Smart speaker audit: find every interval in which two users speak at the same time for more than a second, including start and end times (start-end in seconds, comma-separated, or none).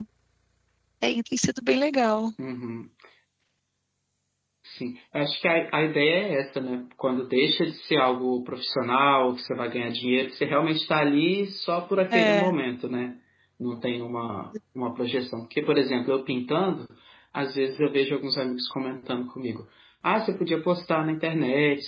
none